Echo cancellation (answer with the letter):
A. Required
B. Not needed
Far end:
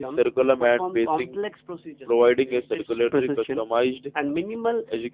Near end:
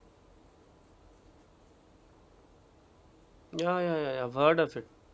B